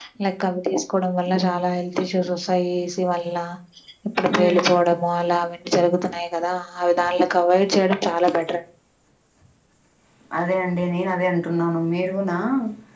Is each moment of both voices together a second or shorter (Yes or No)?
Yes